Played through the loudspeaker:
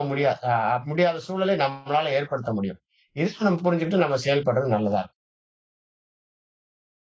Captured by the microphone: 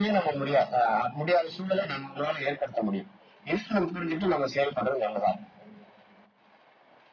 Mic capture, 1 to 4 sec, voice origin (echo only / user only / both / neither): echo only